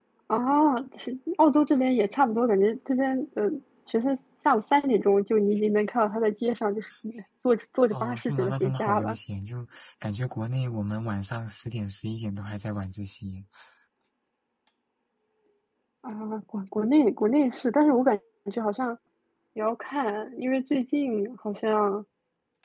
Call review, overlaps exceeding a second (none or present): present